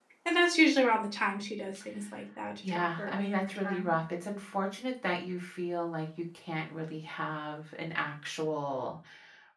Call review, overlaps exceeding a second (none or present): present